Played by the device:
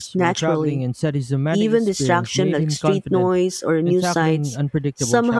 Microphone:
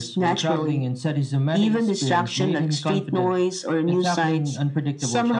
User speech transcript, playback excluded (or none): none